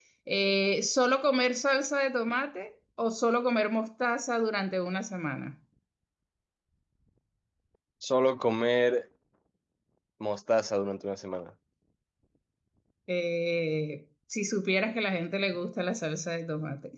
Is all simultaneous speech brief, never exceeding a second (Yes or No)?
Yes